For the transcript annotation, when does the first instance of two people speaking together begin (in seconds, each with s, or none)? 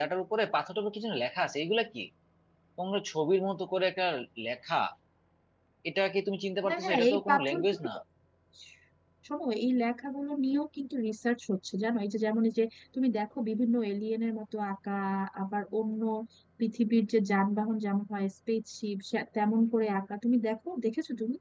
6.7 s